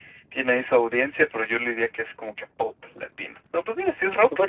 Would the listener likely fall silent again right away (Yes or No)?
No